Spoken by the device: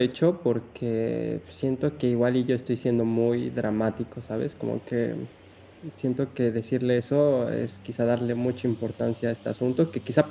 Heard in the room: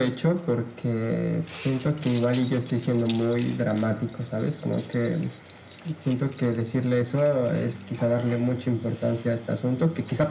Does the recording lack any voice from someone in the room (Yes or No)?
Yes